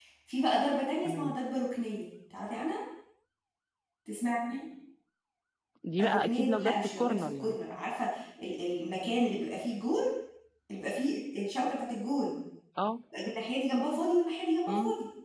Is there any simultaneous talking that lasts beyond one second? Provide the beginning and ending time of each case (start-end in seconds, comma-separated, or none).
6.0-7.6